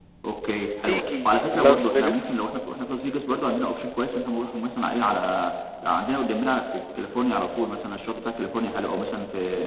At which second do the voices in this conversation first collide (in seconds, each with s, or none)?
0.8 s